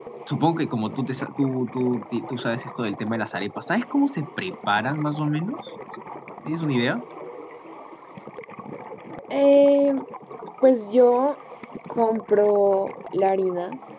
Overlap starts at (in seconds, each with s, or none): none